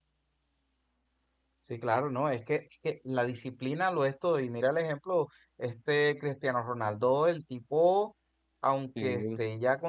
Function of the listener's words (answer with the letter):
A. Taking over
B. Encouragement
B